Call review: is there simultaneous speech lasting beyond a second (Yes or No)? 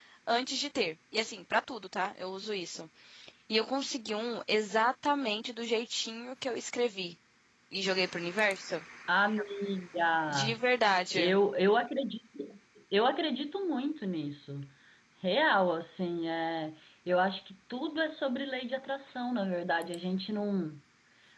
No